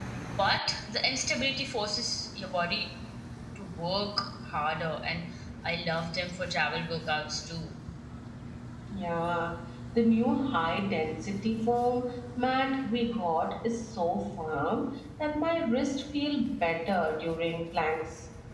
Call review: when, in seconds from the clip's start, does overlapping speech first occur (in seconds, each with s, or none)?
none